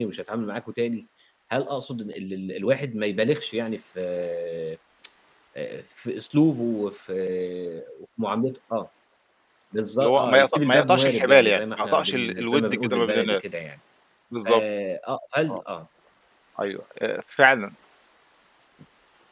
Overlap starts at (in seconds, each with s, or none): 10.0 s